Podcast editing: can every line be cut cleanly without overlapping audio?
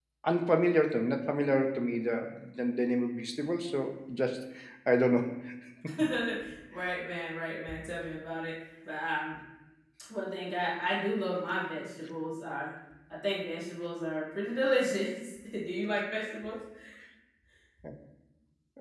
Yes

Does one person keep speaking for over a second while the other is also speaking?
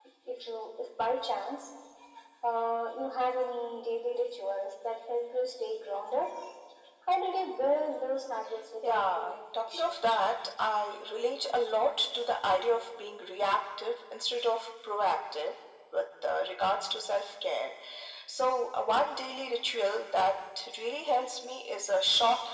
Yes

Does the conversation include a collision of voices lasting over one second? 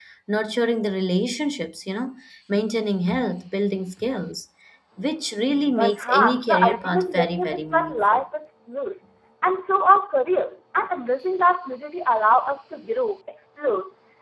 Yes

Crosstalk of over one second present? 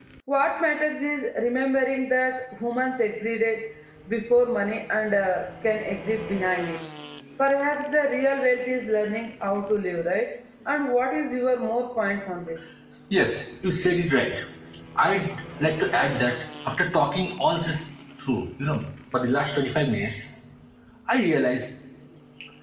No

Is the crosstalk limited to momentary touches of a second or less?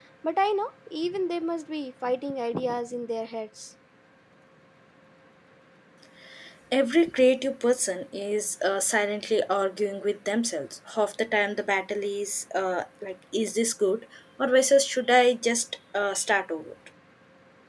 Yes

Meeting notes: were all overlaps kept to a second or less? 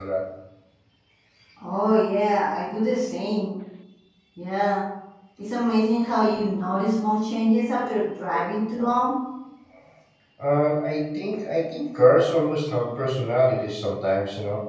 Yes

